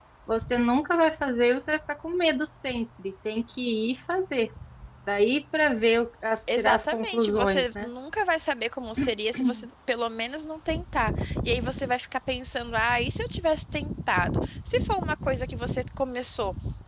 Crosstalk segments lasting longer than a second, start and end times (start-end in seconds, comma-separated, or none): 6.5-7.9